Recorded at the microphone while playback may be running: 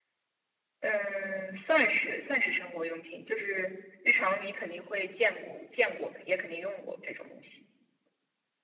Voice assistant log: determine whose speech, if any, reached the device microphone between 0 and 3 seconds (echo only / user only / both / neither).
echo only